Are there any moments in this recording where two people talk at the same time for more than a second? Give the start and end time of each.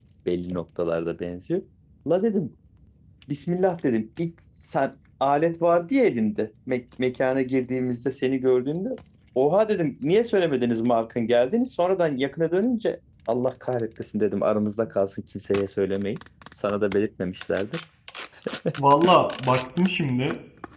none

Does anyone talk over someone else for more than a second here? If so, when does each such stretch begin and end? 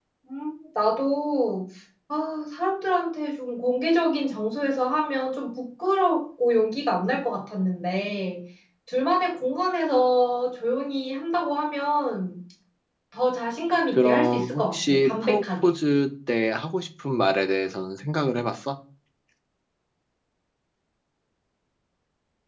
13.9-15.7

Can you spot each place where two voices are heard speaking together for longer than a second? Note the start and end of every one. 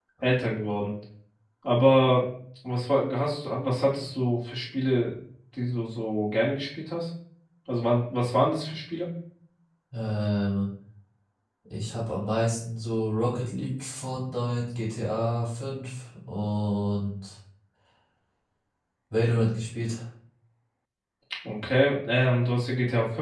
none

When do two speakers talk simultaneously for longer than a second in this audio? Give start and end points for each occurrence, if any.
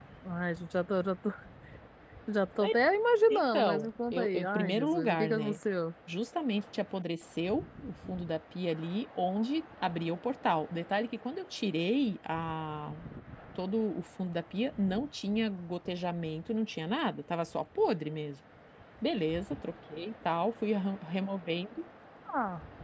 3.3-5.5

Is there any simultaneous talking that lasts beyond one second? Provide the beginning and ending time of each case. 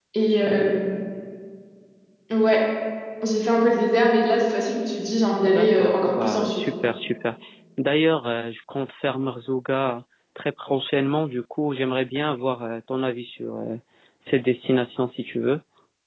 5.4-6.7

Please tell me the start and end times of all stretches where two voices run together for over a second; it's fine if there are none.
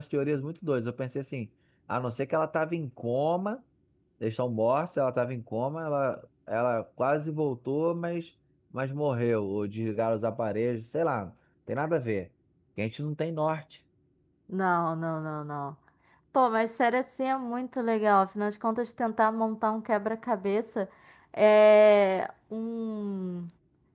none

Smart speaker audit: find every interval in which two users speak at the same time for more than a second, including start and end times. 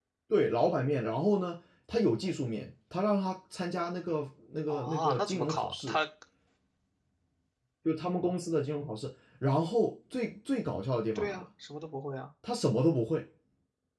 4.7-6.0

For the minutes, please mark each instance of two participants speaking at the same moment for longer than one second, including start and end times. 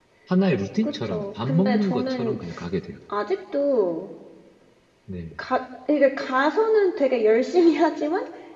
0.8-2.4

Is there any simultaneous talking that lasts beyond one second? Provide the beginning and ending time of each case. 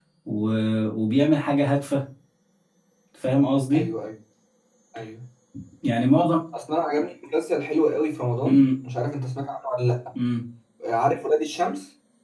none

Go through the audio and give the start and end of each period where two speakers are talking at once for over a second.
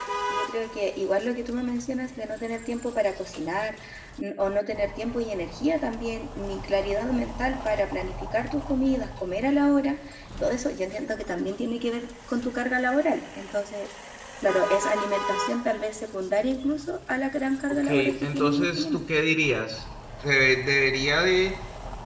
17.7-19.0

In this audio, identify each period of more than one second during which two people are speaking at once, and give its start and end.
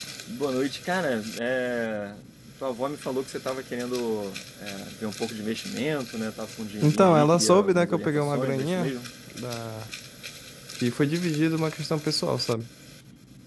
6.8-8.9

